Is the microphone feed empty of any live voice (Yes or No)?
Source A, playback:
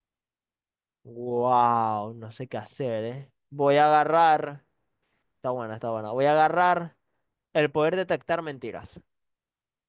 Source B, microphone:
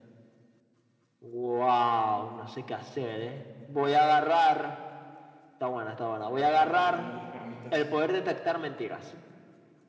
No